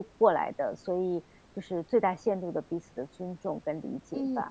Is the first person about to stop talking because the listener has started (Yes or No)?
Yes